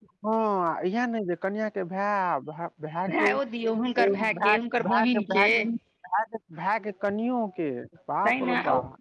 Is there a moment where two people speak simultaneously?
Yes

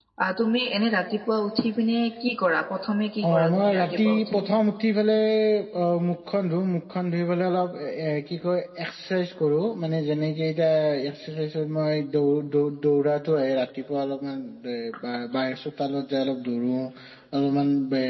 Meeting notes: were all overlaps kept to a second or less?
No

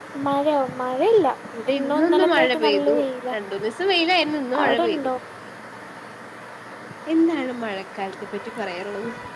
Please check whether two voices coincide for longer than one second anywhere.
Yes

